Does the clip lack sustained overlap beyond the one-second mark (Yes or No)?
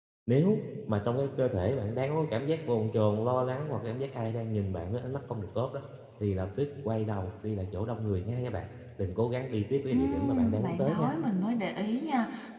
No